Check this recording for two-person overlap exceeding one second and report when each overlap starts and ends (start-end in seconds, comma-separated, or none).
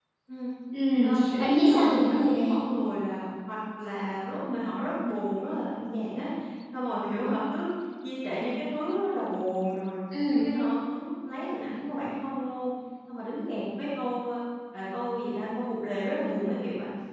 1.0-2.6